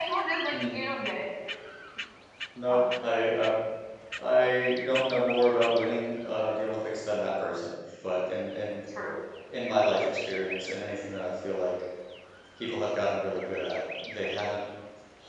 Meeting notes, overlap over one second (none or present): none